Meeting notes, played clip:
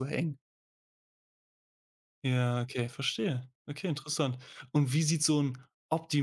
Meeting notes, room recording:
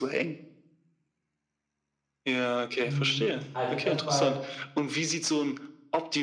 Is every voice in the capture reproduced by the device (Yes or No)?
No